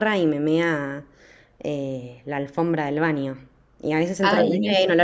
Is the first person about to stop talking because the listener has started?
No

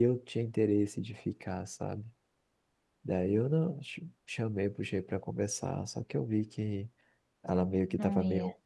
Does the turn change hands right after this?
No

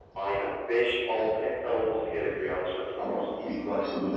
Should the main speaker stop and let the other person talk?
Yes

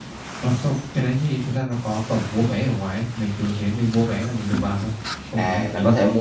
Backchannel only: No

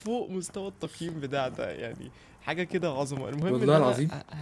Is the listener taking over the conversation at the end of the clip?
No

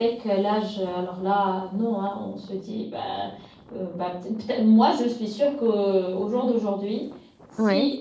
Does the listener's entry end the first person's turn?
No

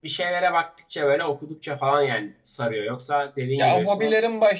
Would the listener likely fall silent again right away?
No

